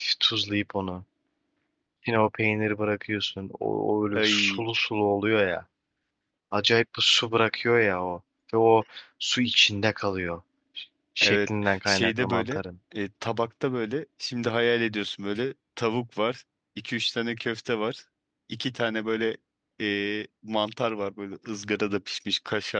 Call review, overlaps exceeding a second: present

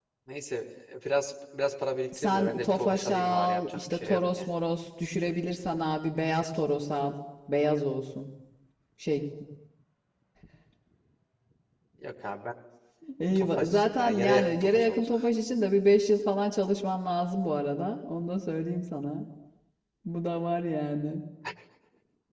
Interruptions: present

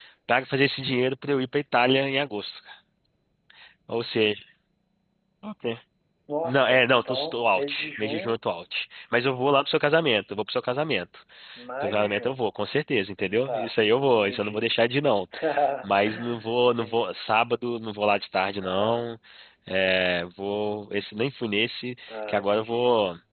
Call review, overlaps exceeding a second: present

